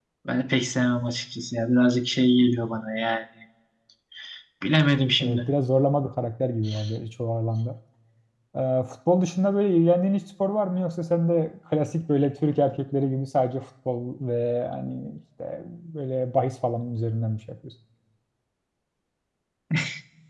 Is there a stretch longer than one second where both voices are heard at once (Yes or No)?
No